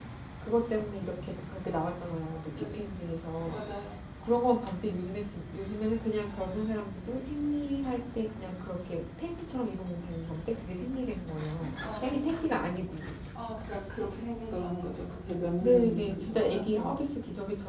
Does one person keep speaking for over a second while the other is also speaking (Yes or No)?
Yes